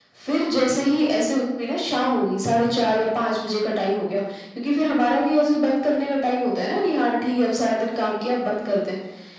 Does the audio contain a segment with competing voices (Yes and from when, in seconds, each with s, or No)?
No